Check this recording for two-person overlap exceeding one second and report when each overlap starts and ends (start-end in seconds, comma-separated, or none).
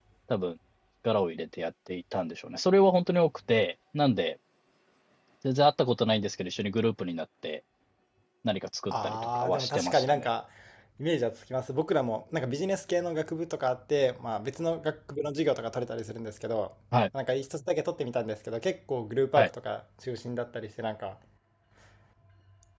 8.9-10.2